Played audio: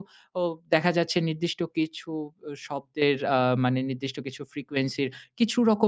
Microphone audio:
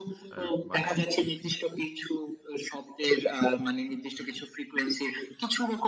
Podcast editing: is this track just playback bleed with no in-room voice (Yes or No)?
No